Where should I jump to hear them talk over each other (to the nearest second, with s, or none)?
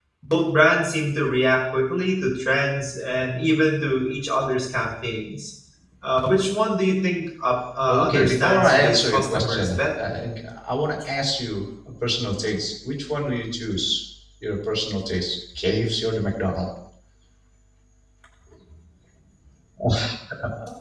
8 s